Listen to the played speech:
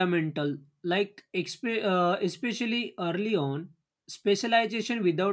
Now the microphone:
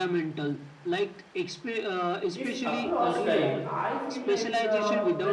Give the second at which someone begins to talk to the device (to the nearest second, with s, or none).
2 s